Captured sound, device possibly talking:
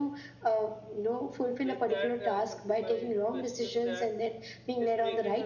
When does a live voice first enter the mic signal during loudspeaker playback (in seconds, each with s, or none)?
1.7 s